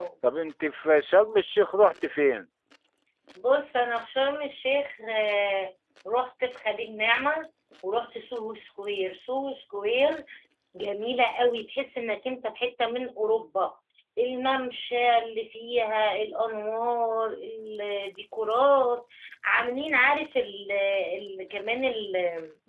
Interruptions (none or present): none